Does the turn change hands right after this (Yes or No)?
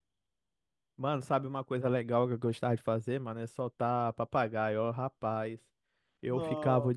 No